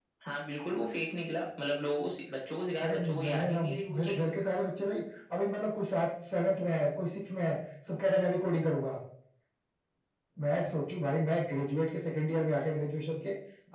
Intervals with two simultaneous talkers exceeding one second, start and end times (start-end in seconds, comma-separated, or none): 2.8-4.2